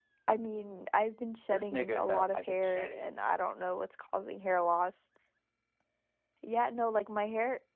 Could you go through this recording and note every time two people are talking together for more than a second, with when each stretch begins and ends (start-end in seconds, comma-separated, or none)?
1.5-3.0